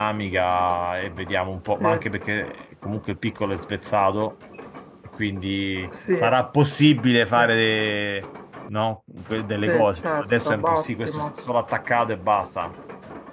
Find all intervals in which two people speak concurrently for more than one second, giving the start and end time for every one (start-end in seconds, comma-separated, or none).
9.6-11.3